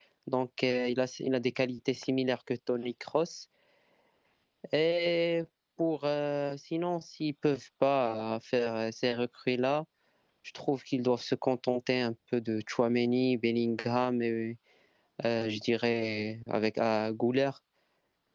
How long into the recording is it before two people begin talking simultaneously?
none

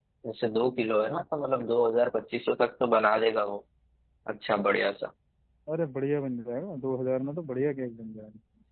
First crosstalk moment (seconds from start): none

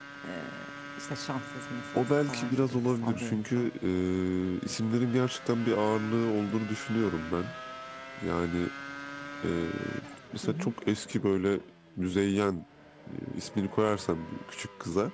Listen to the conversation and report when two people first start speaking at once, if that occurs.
1.9 s

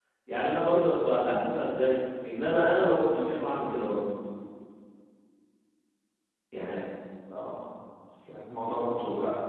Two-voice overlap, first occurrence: none

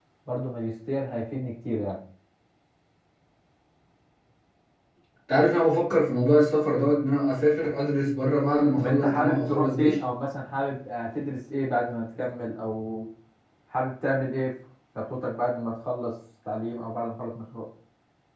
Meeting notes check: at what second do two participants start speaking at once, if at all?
8.7 s

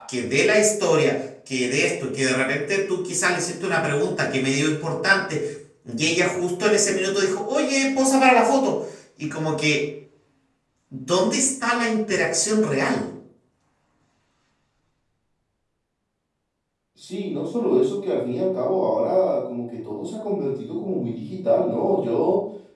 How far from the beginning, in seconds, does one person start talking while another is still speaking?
none

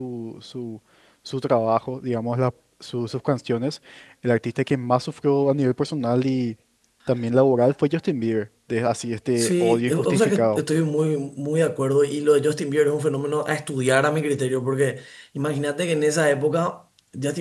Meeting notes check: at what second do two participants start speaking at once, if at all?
9.4 s

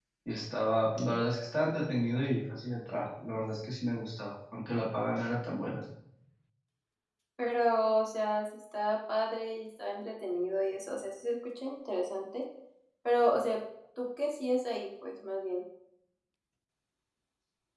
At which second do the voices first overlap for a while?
none

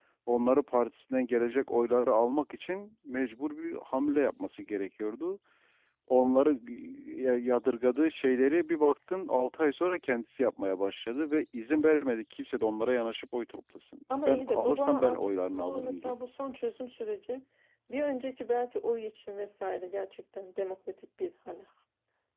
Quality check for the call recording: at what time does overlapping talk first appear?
14.1 s

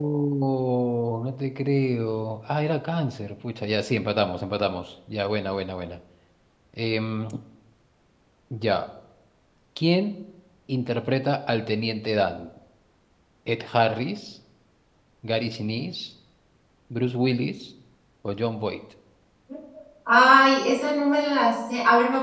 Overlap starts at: none

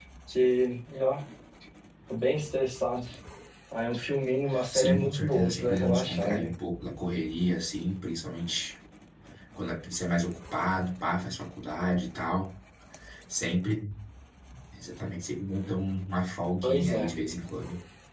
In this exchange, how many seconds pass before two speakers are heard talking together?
4.7 s

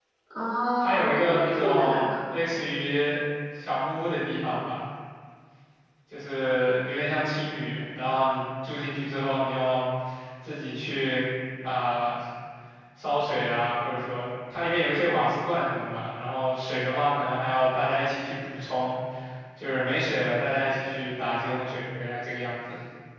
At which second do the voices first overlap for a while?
0.8 s

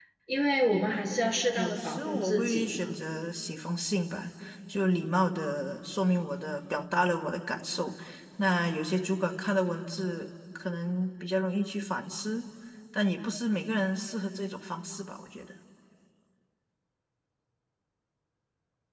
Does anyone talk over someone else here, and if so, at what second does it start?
1.5 s

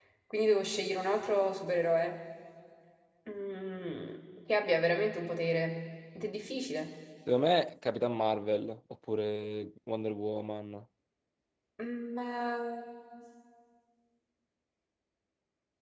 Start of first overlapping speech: none

